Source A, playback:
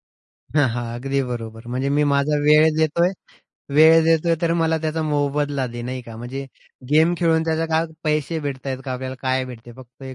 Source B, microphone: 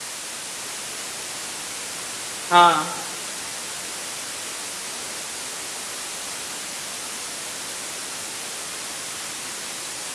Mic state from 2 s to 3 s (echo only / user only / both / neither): user only